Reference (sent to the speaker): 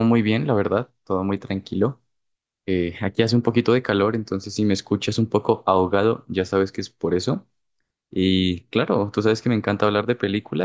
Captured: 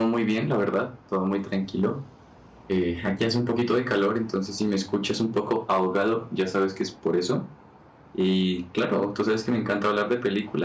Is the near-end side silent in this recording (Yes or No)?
Yes